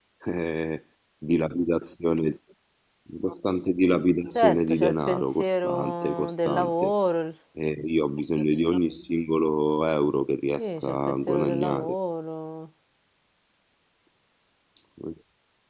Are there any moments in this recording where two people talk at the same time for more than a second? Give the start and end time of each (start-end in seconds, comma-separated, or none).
4.3-6.9, 10.6-11.9